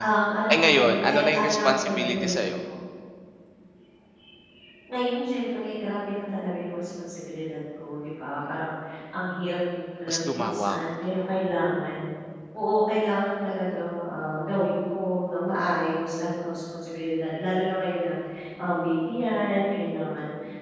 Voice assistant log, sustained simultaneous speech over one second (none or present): present